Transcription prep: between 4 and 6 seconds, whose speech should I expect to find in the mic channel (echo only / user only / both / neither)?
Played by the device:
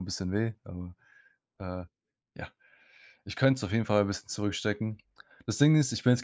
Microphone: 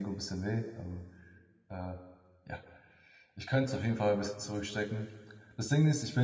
echo only